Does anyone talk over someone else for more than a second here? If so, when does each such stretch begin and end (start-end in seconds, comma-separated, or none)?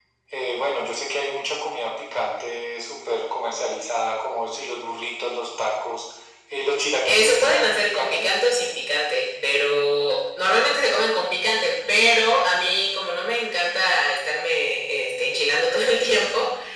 7.1-8.3